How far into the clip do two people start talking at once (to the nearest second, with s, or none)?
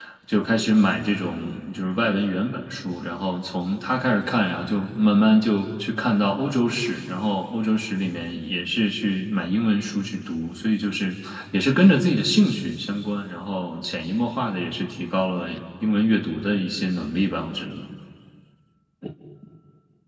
none